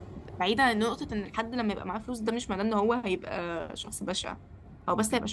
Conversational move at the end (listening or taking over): listening